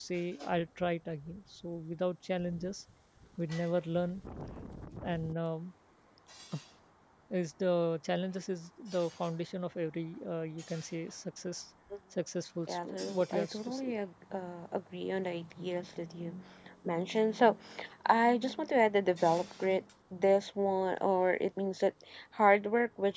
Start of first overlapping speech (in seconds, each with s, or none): 12.7 s